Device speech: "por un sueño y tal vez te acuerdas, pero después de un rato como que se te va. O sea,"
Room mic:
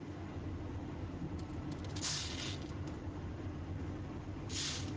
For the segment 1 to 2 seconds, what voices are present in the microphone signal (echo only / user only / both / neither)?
neither